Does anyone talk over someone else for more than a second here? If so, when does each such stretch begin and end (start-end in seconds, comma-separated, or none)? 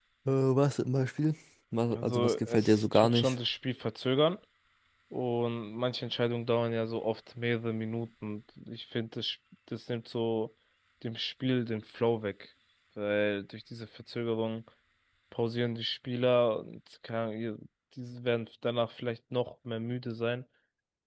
1.9-3.3